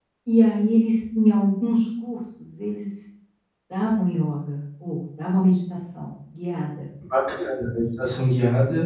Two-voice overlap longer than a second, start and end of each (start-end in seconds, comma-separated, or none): none